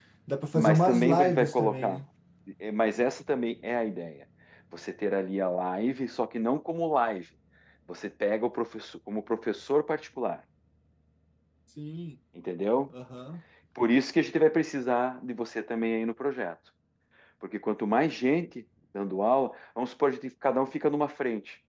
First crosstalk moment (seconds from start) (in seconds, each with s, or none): 0.5 s